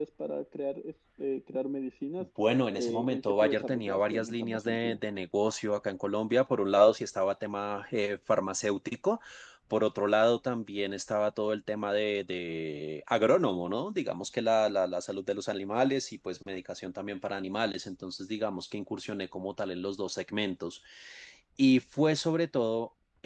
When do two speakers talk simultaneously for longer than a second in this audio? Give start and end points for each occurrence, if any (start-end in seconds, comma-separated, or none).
2.7-5.0